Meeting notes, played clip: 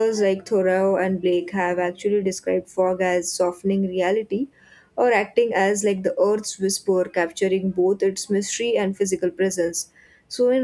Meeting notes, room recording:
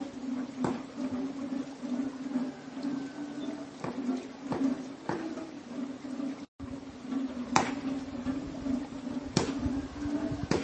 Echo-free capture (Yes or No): Yes